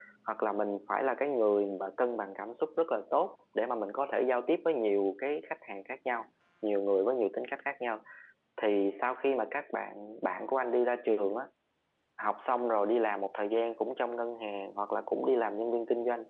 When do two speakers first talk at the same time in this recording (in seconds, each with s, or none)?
none